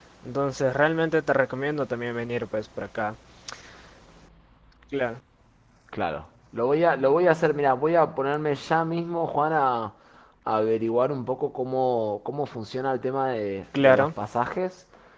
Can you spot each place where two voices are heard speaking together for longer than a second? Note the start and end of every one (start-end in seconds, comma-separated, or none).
none